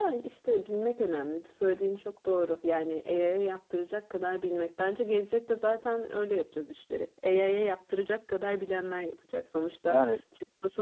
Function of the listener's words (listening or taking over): listening